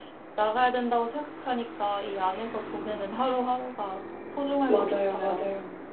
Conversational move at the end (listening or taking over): taking over